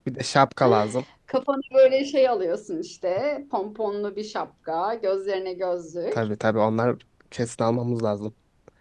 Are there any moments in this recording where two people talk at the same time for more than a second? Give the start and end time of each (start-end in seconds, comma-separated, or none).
none